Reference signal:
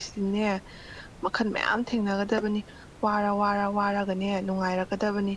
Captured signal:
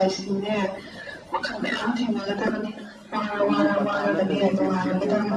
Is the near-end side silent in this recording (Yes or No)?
No